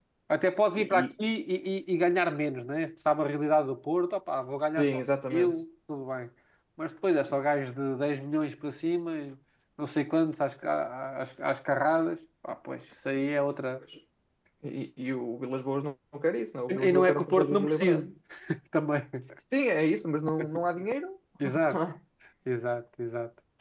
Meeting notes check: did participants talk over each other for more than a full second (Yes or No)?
Yes